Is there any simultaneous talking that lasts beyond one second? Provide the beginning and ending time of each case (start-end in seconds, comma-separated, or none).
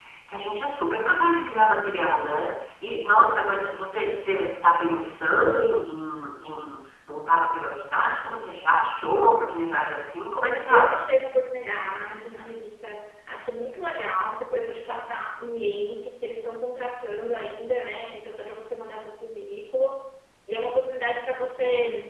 none